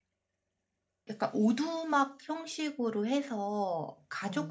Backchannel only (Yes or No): Yes